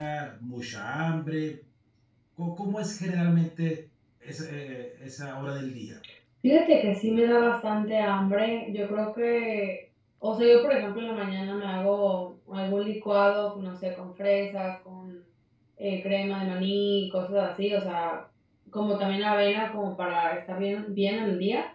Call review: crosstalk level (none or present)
none